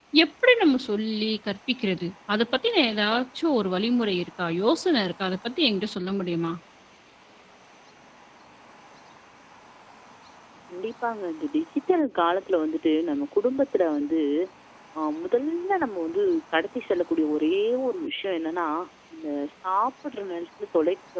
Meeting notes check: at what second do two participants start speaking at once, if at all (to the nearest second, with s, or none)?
none